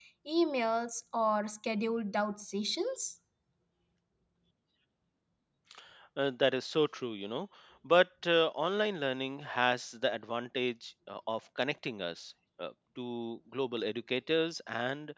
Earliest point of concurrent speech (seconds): none

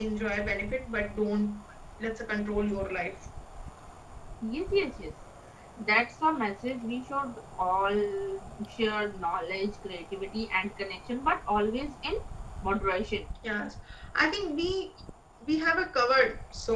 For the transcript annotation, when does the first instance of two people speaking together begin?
none

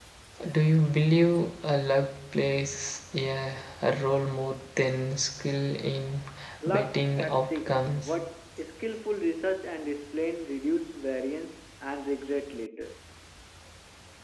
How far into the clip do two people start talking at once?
6.7 s

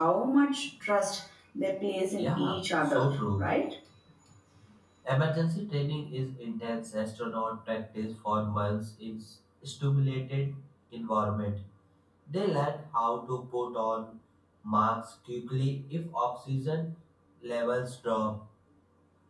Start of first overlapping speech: 2.2 s

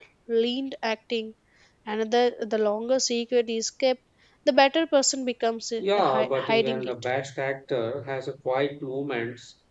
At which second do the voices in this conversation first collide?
5.8 s

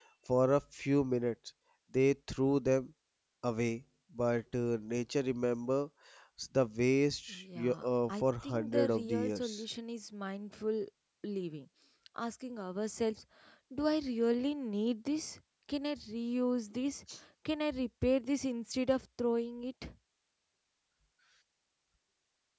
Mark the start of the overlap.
7.3 s

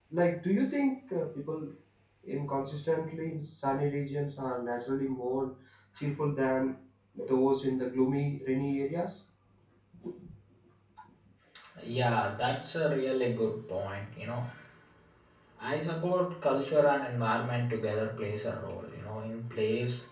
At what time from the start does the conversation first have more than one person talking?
none

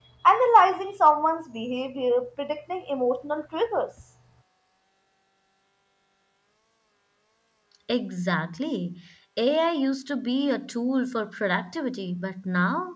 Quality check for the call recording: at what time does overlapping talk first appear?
none

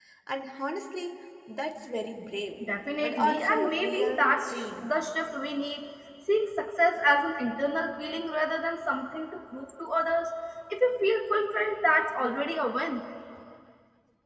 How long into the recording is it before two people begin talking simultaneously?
3.0 s

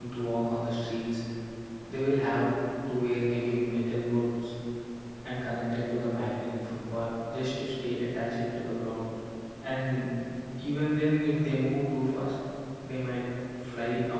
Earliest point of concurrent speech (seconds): none

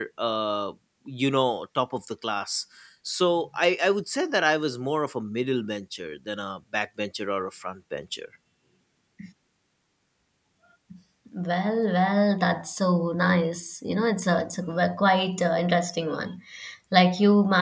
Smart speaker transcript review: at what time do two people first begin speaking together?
none

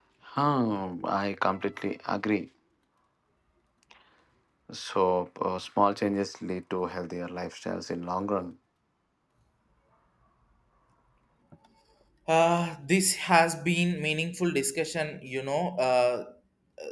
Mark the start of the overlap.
none

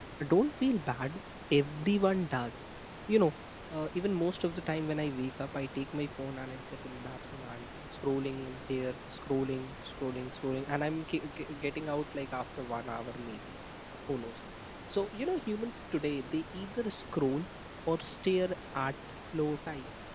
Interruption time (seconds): none

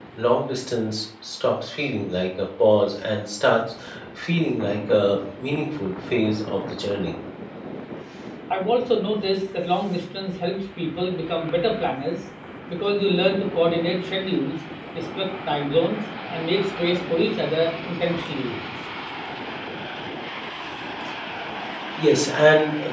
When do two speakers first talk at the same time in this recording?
none

